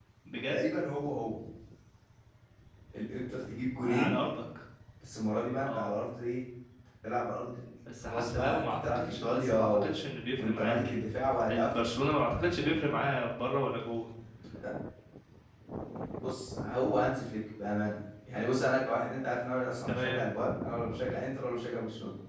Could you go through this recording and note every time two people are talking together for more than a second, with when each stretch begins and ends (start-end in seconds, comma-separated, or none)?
8.0-9.9